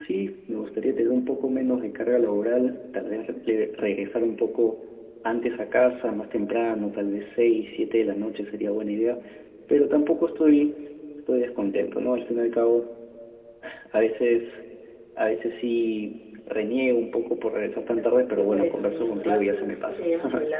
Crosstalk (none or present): present